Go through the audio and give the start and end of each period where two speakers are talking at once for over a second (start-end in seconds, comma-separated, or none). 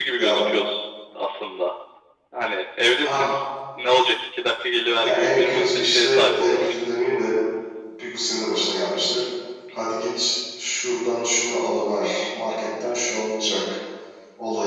5.0-6.7